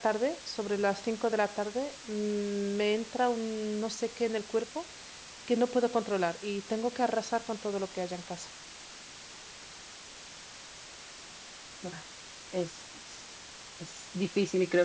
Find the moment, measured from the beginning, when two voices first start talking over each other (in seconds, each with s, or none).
none